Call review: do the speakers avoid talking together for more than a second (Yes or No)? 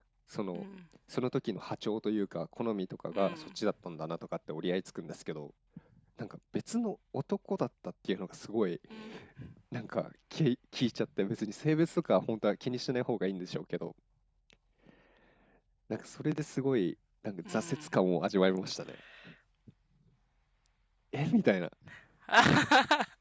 Yes